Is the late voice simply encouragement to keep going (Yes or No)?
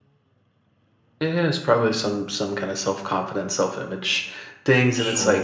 Yes